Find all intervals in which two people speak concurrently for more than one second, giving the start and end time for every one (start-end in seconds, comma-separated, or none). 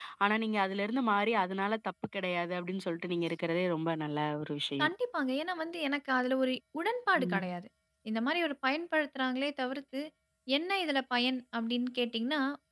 none